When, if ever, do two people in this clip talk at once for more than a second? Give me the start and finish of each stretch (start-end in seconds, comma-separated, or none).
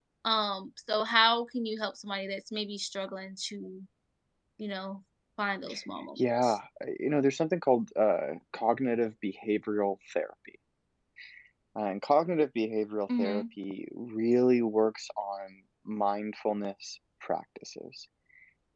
none